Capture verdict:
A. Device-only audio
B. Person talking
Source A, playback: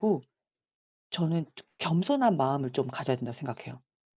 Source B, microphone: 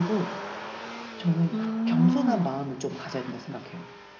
B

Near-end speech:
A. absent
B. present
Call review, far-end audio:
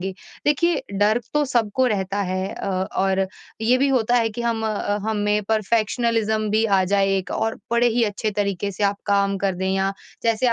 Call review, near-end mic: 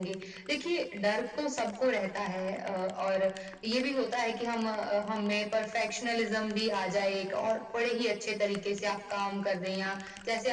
A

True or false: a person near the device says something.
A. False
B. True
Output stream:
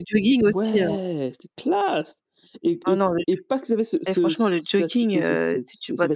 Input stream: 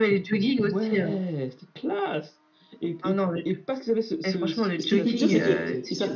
B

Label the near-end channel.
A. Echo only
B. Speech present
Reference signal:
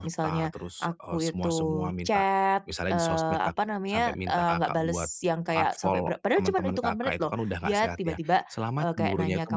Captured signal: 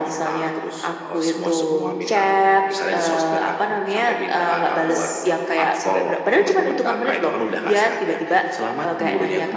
A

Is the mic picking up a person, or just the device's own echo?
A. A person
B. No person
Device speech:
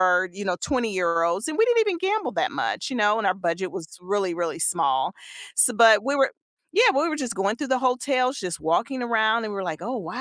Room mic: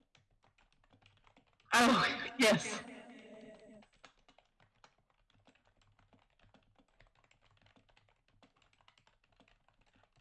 A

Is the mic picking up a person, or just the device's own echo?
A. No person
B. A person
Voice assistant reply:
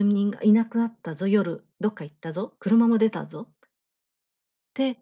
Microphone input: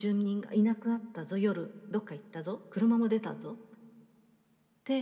A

